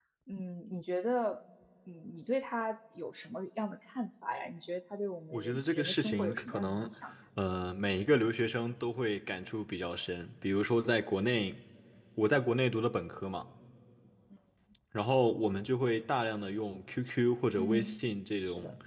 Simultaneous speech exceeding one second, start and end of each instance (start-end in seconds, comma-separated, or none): 5.3-6.9